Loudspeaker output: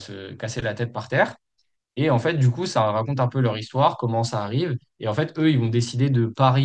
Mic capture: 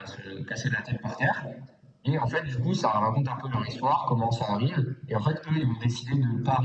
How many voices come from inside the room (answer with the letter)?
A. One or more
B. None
B